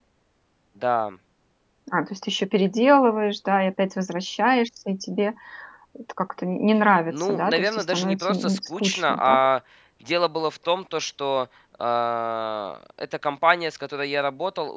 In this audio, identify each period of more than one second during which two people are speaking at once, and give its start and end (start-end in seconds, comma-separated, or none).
7.1-9.5